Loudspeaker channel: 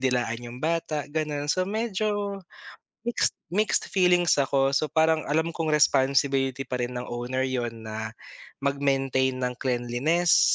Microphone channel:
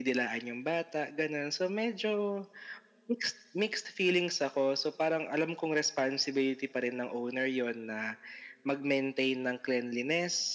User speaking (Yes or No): No